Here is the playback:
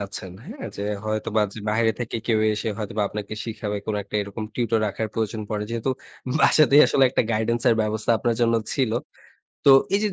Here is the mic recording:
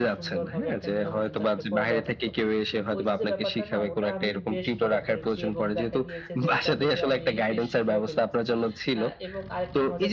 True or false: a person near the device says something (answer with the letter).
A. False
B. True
B